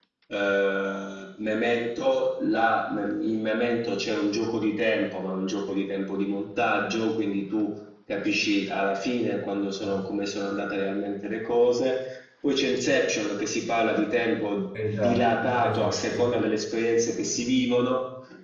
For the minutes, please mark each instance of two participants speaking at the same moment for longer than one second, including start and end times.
14.9-16.2

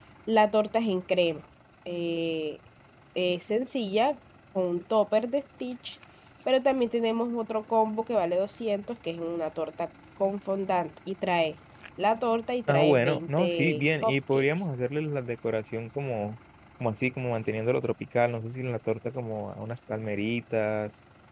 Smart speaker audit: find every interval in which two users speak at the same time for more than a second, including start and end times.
12.7-14.4

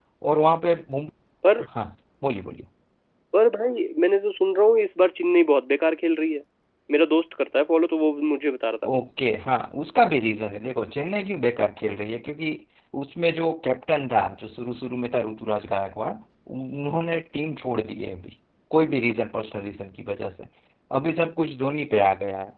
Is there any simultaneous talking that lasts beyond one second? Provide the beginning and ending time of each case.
none

